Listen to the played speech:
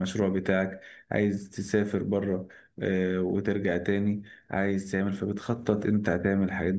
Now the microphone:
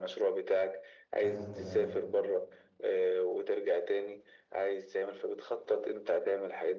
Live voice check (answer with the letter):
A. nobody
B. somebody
B